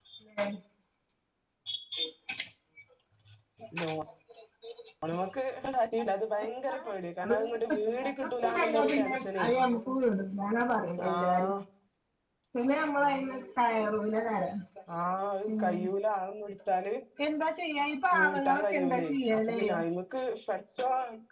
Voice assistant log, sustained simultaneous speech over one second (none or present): present